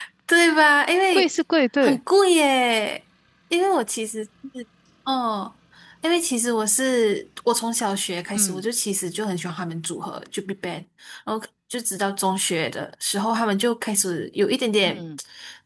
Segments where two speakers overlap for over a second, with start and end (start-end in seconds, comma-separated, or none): none